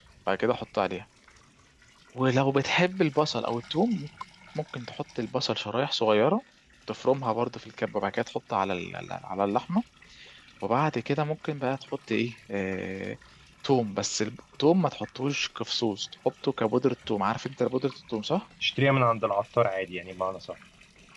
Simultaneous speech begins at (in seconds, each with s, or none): none